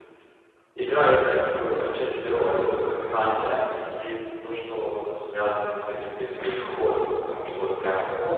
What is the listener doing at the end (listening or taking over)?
listening